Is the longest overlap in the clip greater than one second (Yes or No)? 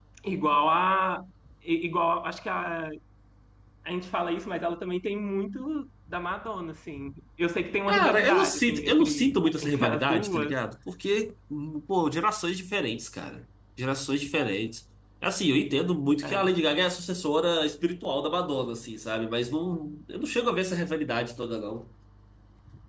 Yes